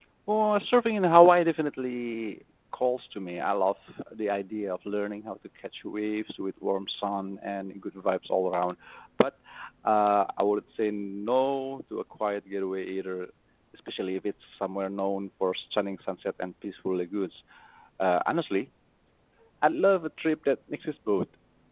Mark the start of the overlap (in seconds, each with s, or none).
none